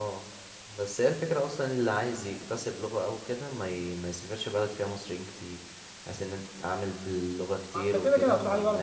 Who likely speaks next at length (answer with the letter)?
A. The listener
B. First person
A